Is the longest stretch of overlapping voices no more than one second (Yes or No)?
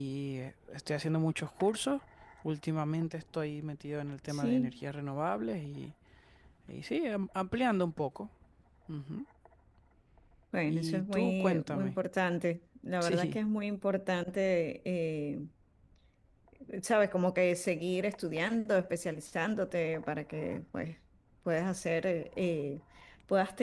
No